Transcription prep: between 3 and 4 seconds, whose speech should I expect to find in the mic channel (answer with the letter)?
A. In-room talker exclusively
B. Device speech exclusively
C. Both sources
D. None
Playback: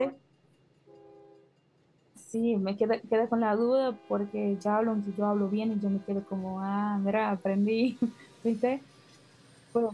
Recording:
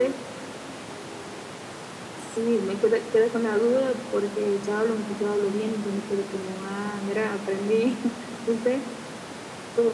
B